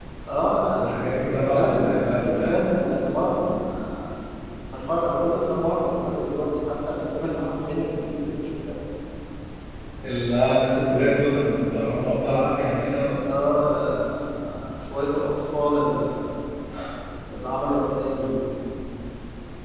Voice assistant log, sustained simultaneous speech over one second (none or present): present